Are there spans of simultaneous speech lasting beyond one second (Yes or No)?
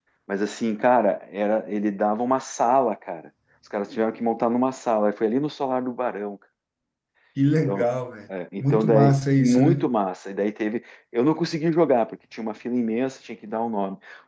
Yes